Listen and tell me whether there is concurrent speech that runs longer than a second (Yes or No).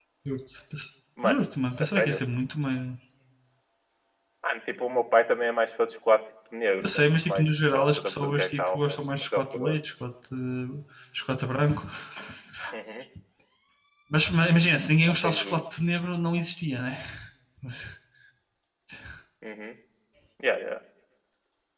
Yes